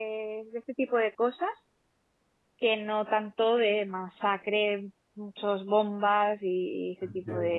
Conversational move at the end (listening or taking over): taking over